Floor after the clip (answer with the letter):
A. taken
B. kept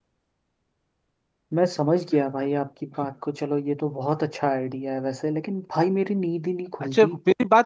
A